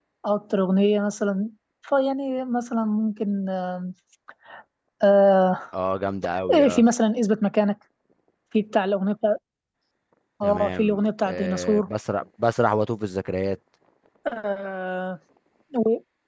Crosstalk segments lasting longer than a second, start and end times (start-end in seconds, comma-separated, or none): 10.4-11.9